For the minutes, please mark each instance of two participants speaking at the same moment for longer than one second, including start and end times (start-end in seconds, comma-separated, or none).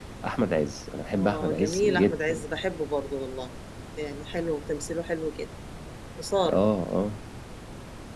1.1-2.4